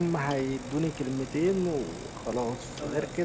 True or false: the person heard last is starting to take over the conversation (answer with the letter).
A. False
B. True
A